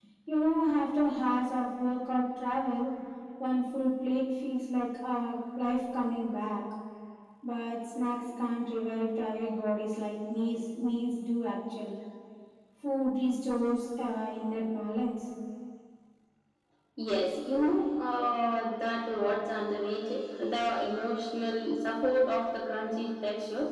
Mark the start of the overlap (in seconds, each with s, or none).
none